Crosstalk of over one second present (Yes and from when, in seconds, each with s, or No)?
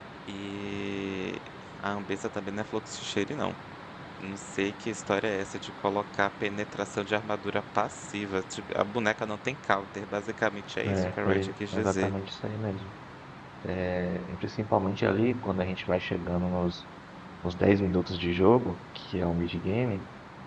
Yes, from 10.8 s